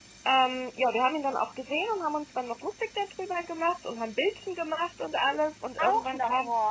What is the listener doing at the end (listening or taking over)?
taking over